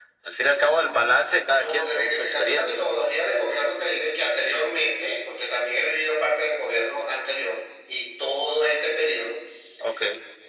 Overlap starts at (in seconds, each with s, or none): 1.5 s